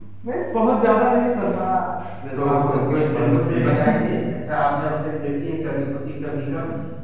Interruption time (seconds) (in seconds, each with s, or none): 2.4 s